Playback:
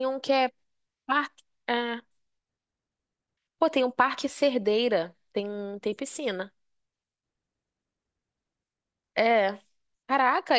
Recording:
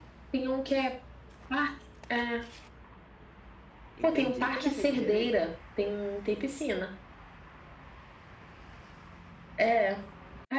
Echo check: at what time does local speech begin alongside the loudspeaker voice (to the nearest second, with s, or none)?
4 s